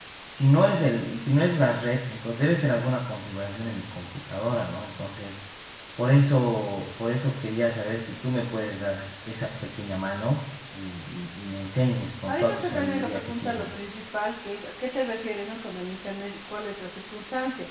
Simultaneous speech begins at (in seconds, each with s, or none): 12.3 s